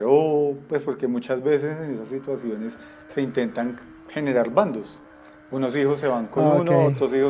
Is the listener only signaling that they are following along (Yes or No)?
Yes